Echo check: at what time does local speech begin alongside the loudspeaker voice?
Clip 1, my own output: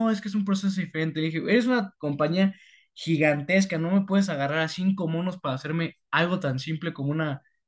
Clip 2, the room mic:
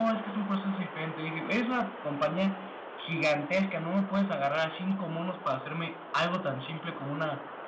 none

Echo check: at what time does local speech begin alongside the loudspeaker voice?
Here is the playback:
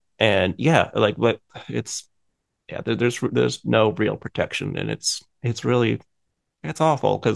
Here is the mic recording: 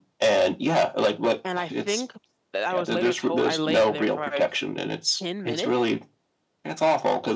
1 s

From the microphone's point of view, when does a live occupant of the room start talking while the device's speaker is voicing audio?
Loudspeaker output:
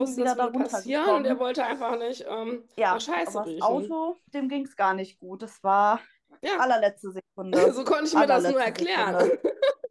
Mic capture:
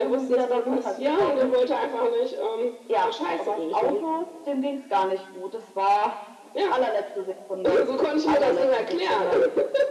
none

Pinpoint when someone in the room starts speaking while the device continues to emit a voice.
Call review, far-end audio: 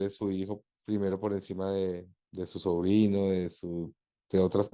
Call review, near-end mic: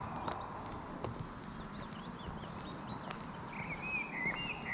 none

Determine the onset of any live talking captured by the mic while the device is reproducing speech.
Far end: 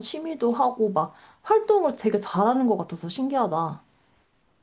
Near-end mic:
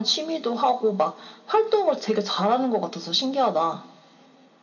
none

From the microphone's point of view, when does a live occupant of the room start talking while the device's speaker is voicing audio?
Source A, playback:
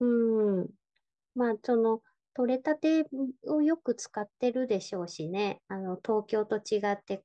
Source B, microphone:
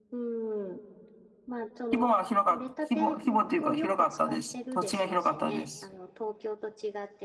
2 s

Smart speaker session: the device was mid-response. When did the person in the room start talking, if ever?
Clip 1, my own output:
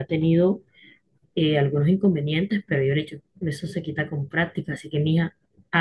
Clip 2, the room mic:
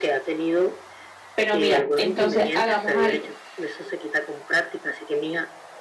1 s

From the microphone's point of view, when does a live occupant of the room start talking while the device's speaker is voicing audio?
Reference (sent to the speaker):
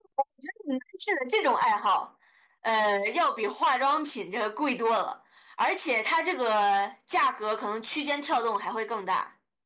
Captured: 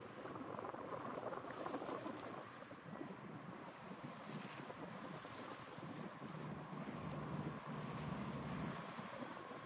none

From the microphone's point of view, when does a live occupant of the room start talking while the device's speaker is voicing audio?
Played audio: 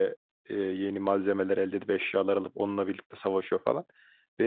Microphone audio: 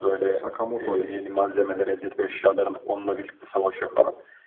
0 s

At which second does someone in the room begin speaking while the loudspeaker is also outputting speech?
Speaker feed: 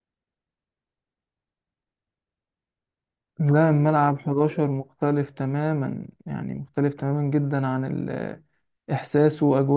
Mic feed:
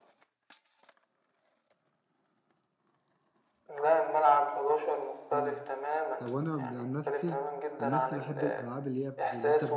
5 s

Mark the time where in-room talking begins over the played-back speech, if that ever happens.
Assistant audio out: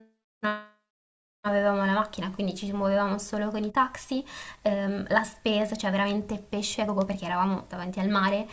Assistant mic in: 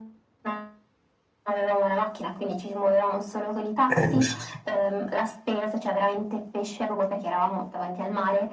4 s

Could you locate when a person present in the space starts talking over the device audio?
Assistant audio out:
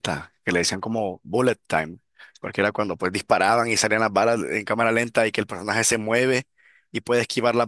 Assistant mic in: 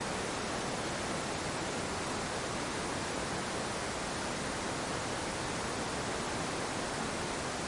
none

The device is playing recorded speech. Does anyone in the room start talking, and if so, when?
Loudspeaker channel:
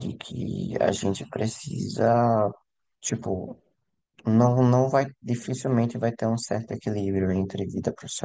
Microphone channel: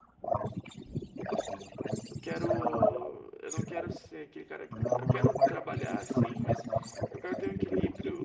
2 s

